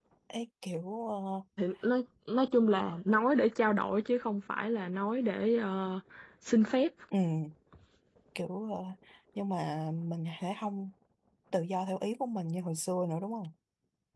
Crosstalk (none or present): none